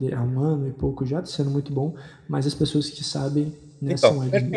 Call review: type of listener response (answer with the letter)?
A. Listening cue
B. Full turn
B